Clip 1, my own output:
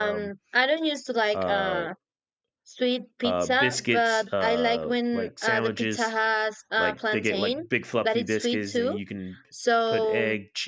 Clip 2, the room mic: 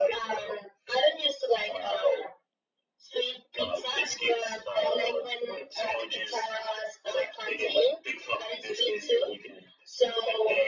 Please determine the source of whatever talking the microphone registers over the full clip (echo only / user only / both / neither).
echo only